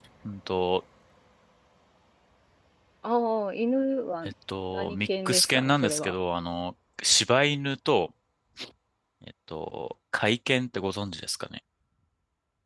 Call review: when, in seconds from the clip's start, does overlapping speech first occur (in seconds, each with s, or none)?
4.7 s